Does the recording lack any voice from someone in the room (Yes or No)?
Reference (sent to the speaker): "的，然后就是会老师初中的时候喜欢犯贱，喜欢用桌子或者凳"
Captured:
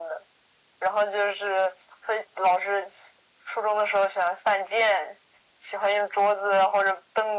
Yes